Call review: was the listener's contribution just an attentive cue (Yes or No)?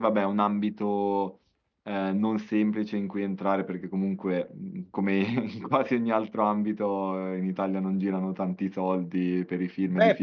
No